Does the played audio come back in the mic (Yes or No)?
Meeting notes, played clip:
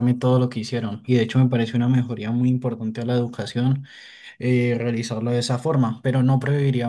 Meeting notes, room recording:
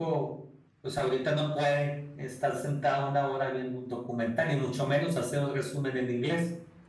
No